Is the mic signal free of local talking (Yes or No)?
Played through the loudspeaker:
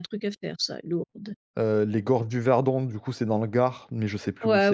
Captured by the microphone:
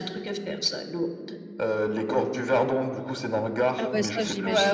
No